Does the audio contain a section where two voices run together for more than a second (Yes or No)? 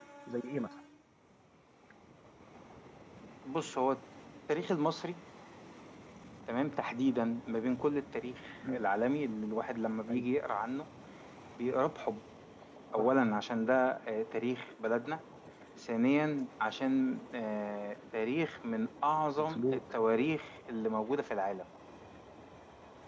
No